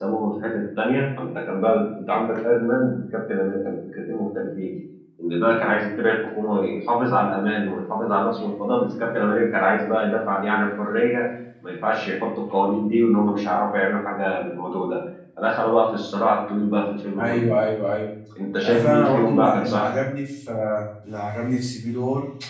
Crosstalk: present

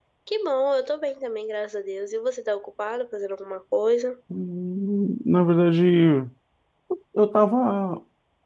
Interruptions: none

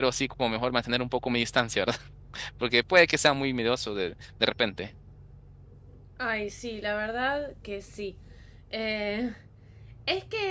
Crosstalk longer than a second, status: none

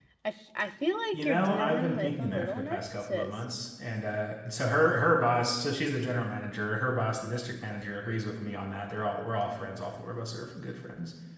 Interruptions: present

